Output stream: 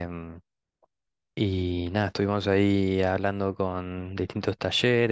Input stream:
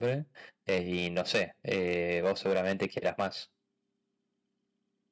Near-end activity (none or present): present